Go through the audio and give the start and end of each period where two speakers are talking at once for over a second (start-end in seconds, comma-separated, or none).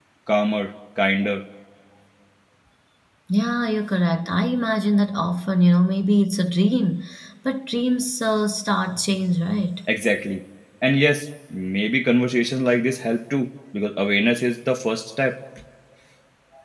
none